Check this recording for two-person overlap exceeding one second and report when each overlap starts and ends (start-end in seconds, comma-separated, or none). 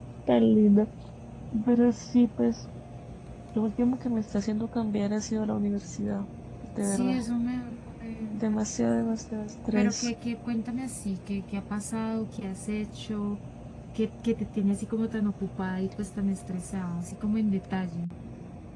none